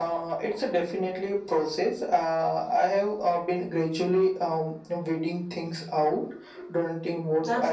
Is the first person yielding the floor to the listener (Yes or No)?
Yes